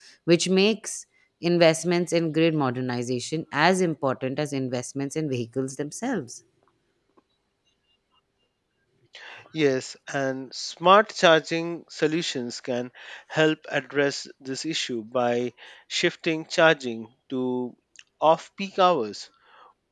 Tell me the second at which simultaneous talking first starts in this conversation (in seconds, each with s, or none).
none